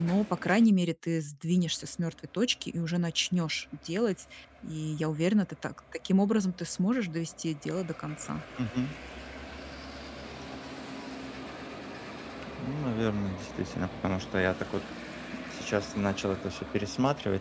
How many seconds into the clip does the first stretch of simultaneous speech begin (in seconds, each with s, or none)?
none